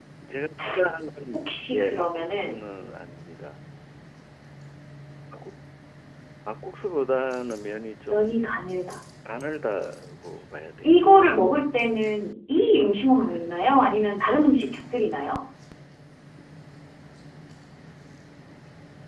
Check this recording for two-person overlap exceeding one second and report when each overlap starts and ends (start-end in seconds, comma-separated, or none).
1.3-2.6